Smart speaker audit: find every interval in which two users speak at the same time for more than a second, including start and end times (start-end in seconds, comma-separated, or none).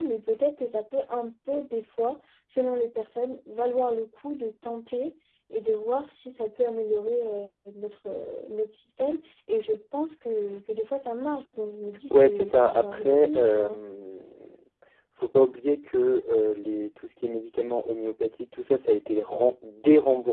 12.1-13.8